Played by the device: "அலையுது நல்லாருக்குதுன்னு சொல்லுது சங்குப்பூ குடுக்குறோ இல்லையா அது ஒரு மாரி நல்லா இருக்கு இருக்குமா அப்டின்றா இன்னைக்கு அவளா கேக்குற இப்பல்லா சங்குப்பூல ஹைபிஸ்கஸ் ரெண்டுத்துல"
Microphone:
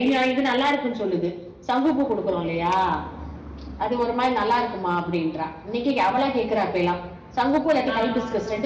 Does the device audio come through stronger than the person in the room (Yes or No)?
Yes